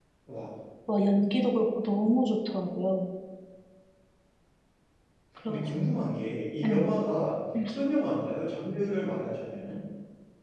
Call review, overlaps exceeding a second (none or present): none